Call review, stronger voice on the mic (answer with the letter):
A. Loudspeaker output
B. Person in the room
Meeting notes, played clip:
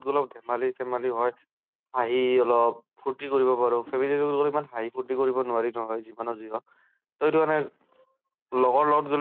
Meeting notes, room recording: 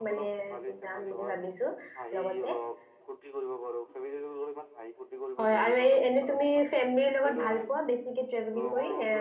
B